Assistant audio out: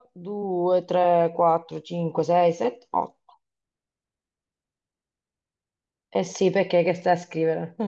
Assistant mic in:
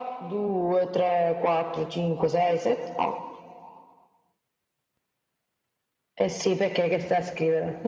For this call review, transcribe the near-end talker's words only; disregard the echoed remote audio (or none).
none